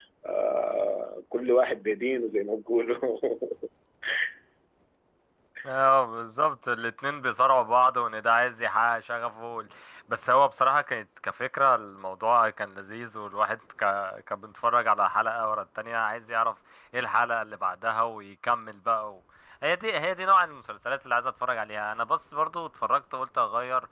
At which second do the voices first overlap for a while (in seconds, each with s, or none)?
none